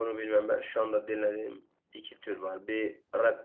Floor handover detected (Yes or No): No